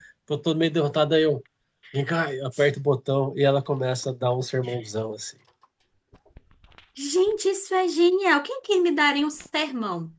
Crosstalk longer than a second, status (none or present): none